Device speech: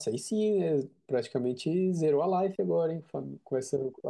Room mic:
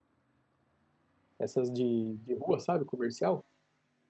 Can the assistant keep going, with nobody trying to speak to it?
No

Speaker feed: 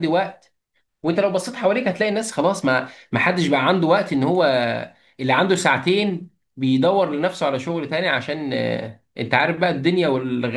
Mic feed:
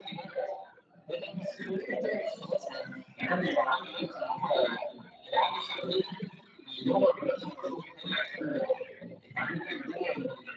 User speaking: Yes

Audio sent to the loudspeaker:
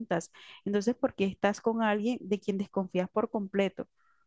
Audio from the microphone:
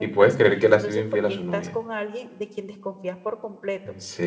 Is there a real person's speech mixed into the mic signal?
Yes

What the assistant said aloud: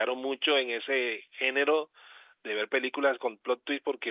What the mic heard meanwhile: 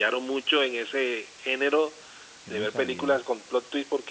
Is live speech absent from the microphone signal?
No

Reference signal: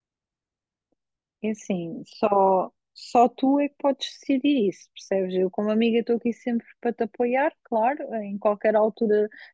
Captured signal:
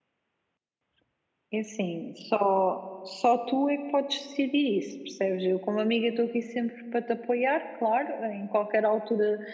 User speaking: No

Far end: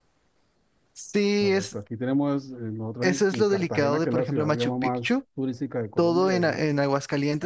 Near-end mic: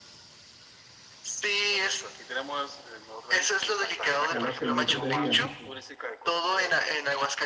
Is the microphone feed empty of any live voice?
No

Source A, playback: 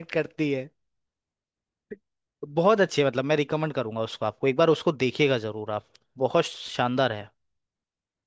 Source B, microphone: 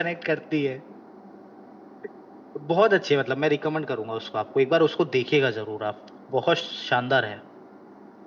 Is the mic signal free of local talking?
Yes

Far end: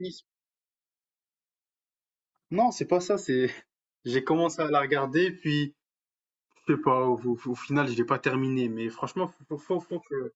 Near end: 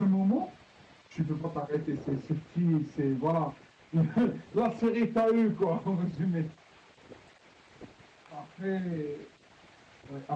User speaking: Yes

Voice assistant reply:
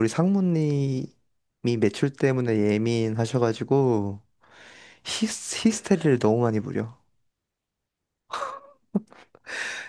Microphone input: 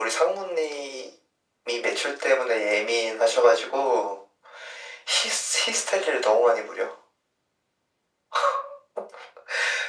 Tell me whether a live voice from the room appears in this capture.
No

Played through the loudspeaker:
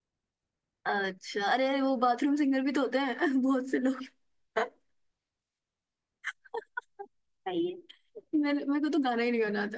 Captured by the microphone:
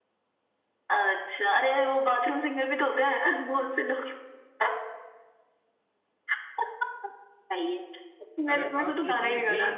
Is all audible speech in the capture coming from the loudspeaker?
No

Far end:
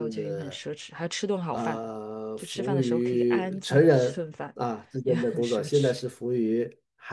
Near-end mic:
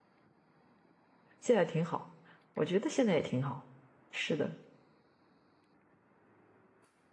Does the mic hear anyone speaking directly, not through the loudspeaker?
Yes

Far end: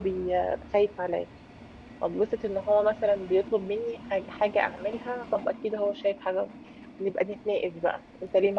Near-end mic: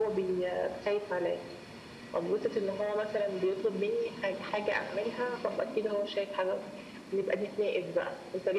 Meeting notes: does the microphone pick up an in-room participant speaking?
No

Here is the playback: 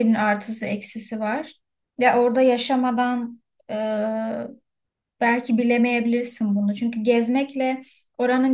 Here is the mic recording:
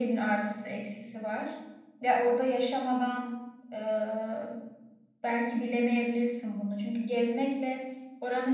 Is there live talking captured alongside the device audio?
No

